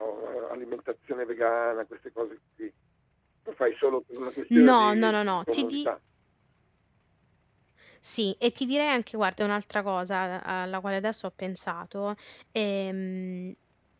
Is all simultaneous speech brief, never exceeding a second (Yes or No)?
No